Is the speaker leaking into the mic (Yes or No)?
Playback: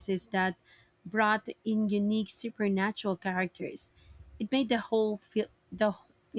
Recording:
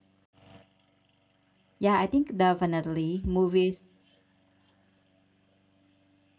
No